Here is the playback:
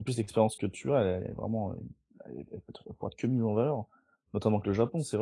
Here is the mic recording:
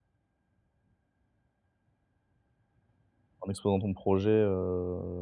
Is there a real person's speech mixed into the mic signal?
Yes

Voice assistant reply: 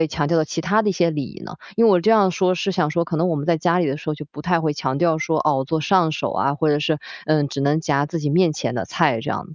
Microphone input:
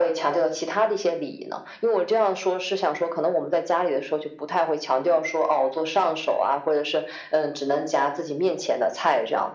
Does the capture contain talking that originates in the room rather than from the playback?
No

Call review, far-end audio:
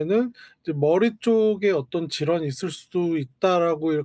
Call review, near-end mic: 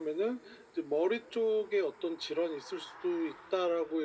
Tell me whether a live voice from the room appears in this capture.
No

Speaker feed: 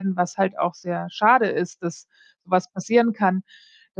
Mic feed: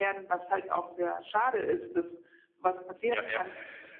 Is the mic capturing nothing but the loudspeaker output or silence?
No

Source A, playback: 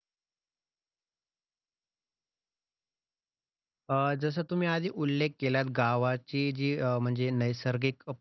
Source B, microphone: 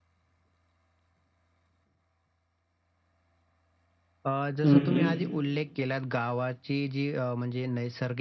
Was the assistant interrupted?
Yes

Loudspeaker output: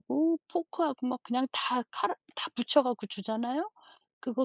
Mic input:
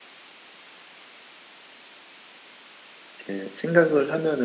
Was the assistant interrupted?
Yes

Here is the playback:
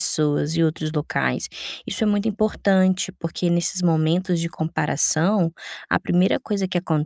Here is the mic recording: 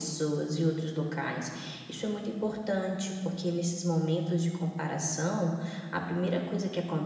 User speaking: No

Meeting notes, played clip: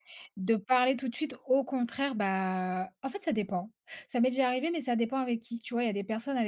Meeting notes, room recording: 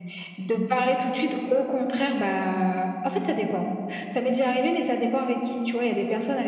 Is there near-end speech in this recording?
No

